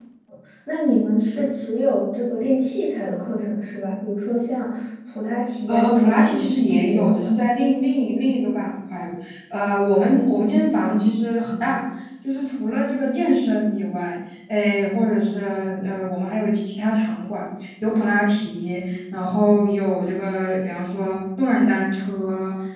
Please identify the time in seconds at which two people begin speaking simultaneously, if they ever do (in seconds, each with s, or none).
5.7 s